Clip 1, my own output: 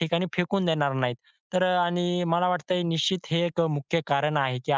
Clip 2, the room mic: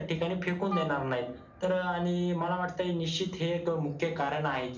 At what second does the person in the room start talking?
none

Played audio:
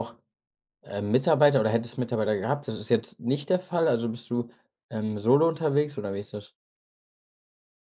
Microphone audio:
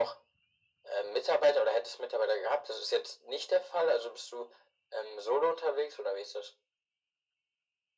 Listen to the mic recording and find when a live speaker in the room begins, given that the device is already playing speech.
none

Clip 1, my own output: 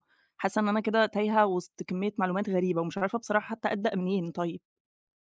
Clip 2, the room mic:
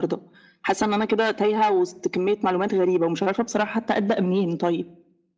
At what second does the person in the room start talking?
none

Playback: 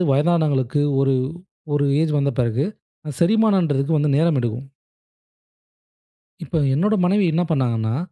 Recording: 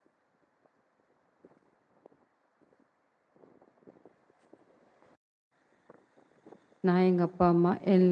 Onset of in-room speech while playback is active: 6.9 s

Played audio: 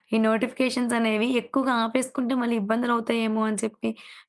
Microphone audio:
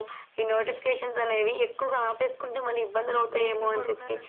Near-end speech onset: 3.1 s

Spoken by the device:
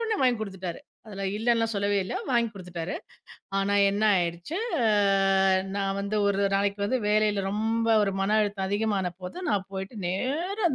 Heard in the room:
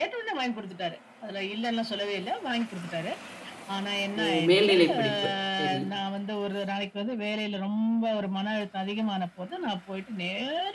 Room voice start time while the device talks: 4.2 s

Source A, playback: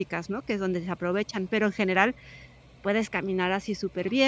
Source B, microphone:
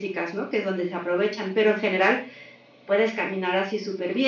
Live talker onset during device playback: none

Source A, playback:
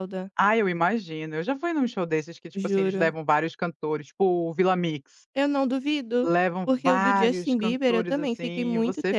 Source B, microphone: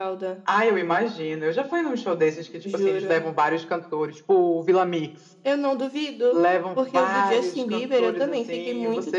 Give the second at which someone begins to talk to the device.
none

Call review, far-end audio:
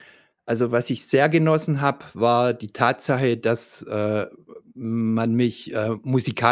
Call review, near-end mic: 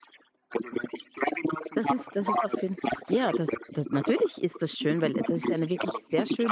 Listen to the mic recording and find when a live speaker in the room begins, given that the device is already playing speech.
1.7 s

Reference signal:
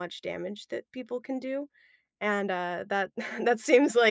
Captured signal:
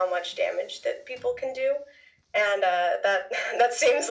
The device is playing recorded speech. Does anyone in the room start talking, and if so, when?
none

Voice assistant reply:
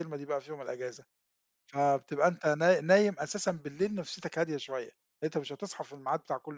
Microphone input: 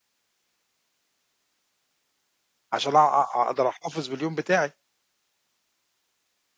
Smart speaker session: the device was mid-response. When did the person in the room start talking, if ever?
2.7 s

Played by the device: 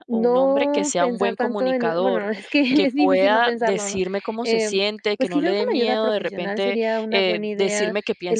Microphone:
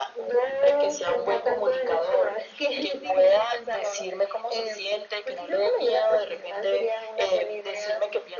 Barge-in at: none

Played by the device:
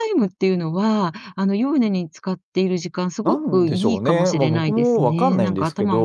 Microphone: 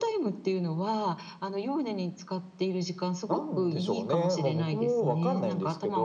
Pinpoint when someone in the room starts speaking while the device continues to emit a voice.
none

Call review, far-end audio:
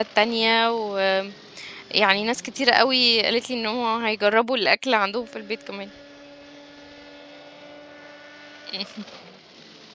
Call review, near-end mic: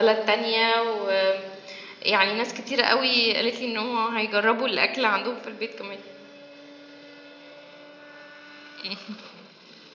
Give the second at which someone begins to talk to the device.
none

